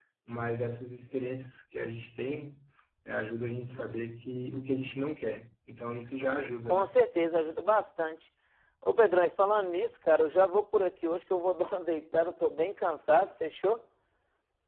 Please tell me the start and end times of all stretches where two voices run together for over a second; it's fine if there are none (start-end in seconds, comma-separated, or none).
none